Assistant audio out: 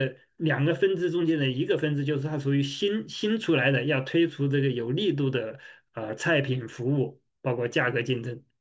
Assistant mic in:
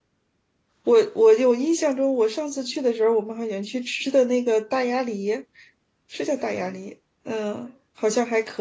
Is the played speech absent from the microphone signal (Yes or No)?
Yes